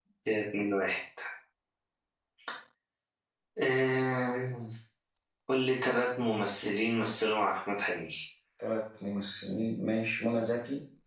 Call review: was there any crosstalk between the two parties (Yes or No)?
No